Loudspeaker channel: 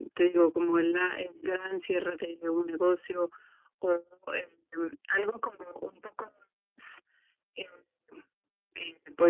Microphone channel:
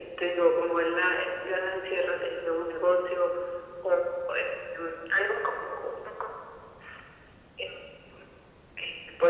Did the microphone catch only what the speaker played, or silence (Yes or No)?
Yes